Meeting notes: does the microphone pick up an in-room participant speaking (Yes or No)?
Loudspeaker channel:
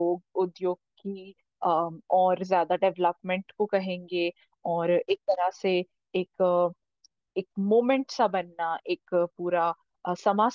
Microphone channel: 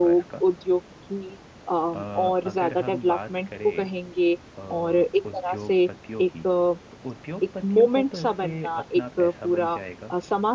Yes